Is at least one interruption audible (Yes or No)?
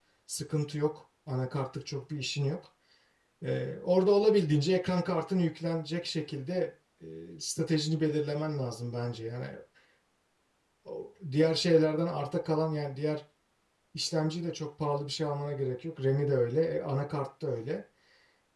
No